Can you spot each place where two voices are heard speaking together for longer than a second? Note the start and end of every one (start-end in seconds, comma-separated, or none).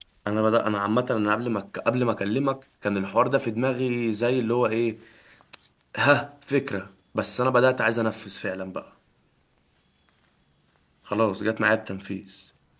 none